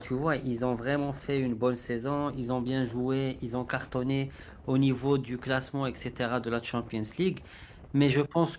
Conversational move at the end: listening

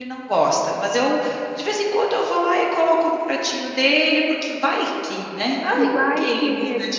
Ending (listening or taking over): taking over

